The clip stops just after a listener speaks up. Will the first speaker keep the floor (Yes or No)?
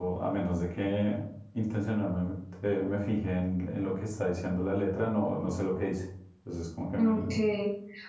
No